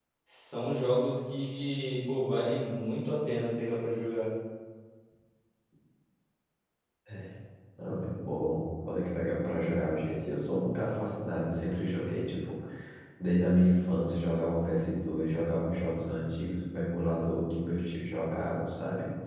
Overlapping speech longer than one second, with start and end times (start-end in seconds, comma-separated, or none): none